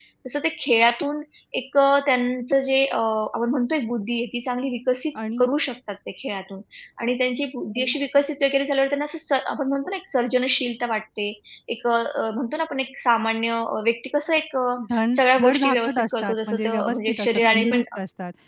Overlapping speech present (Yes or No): Yes